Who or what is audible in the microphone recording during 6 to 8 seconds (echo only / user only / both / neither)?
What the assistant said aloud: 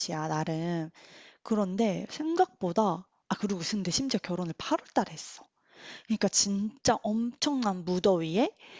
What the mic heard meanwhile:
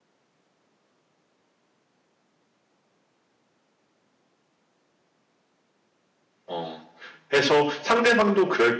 user only